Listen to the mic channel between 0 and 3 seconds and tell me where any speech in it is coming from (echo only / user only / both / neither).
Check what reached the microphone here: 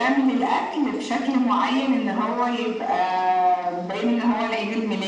echo only